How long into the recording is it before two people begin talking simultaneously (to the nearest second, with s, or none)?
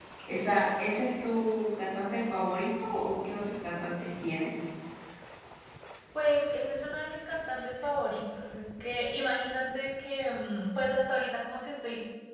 none